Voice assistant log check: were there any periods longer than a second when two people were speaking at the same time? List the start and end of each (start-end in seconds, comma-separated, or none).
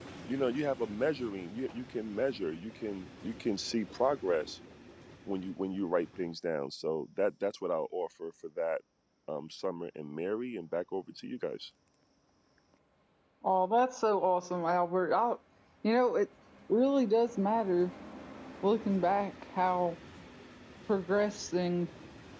none